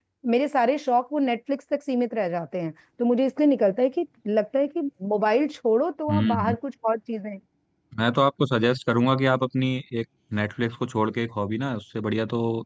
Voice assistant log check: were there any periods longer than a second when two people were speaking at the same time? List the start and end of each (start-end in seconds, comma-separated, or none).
none